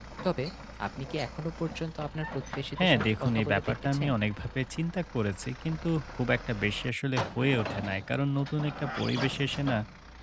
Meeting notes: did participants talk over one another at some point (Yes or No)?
Yes